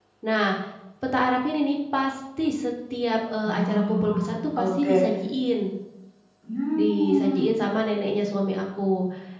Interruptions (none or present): present